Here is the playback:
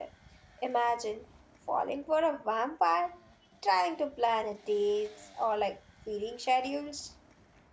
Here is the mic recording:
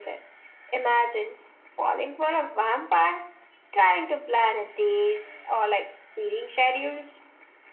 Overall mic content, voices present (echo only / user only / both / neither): echo only